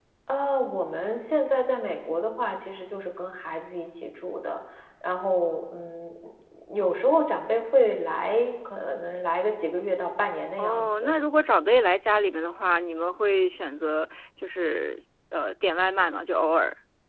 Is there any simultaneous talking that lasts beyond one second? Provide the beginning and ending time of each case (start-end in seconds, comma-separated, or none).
none